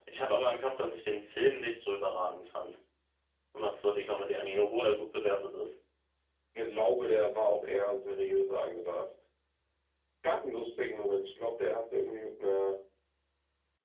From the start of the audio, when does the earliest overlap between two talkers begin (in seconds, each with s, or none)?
none